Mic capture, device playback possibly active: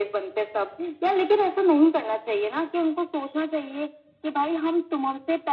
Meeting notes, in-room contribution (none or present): none